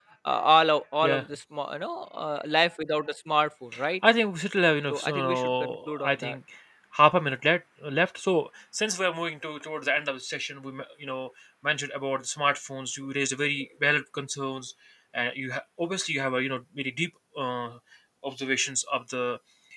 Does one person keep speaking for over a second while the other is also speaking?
Yes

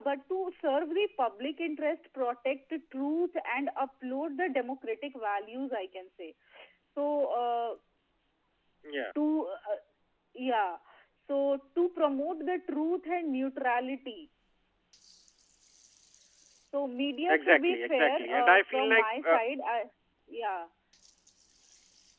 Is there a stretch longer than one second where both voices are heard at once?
Yes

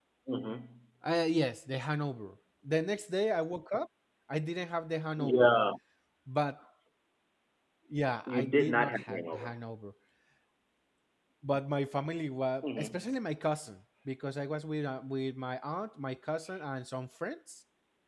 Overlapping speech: Yes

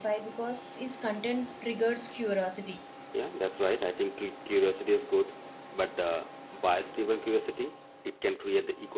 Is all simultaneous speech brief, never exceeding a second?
Yes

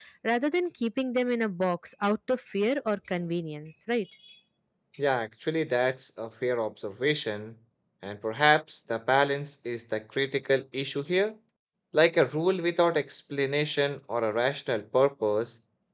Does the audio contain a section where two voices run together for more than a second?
No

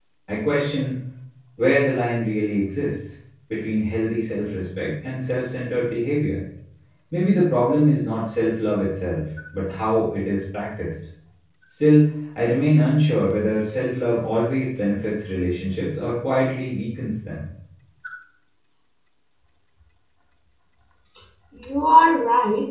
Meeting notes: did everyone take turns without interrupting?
Yes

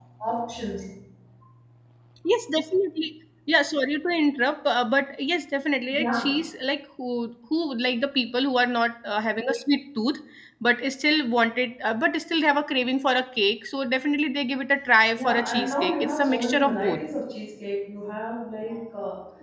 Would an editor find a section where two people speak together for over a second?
Yes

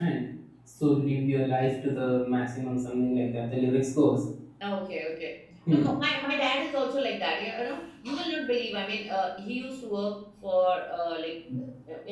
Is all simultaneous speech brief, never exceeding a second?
Yes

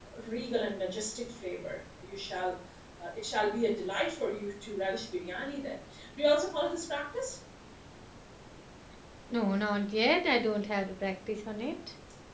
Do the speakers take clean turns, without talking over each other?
Yes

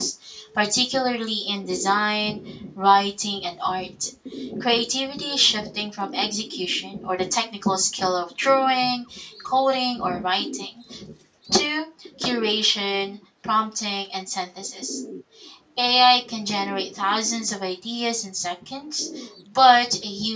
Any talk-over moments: No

